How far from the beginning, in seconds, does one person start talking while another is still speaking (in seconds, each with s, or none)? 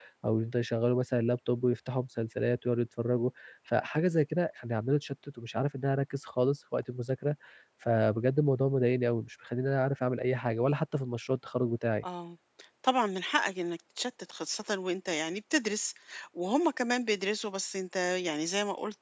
none